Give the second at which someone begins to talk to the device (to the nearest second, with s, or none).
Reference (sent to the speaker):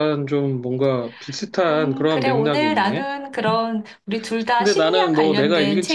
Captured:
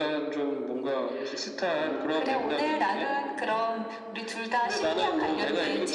none